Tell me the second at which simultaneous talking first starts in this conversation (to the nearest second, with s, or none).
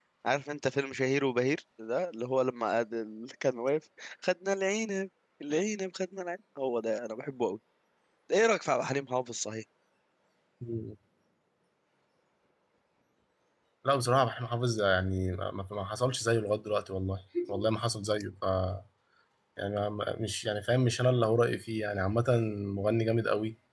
none